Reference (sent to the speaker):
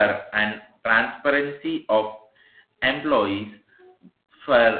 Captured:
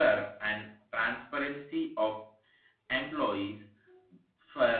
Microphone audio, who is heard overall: echo only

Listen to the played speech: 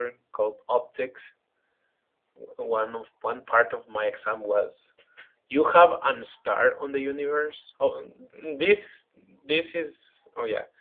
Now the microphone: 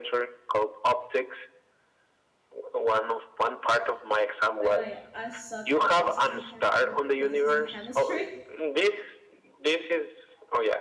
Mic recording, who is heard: both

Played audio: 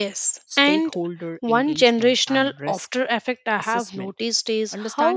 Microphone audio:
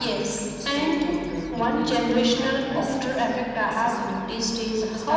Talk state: echo only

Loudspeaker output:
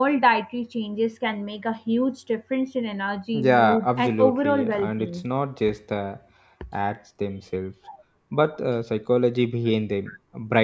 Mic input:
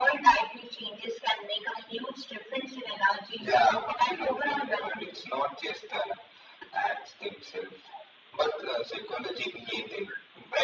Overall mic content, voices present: echo only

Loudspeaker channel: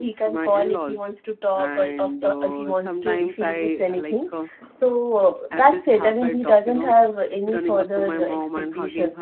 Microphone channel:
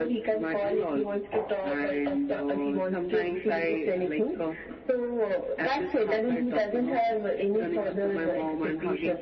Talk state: echo only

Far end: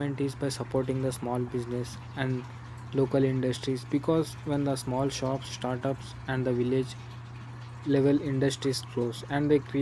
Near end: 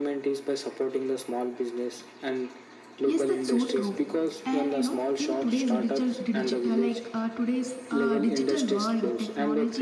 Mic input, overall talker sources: both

